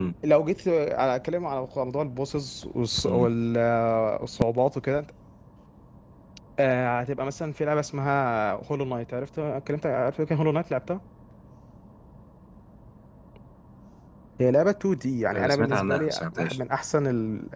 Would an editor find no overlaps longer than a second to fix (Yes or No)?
No